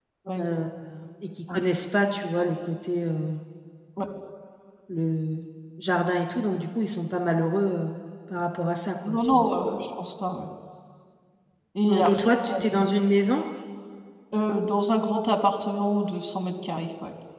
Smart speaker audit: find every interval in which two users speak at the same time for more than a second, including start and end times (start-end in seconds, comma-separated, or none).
none